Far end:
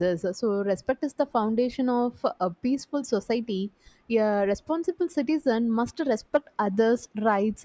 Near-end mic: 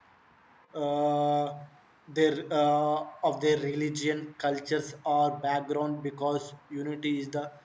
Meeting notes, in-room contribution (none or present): present